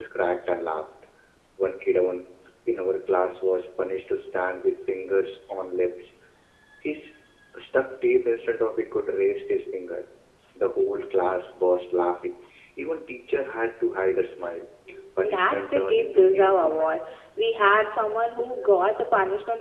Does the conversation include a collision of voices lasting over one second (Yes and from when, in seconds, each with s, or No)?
Yes, from 15.2 s